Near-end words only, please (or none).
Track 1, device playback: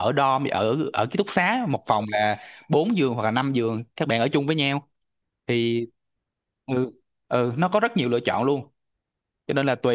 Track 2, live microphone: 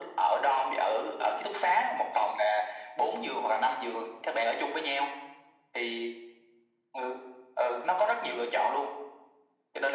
none